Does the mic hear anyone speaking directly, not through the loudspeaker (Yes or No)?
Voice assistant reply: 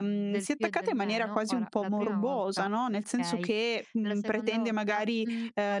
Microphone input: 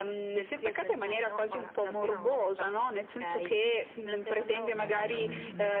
Yes